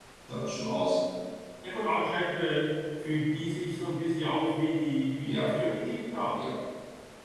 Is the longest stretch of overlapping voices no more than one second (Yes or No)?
Yes